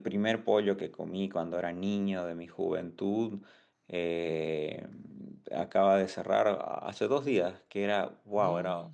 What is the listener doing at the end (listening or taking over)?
listening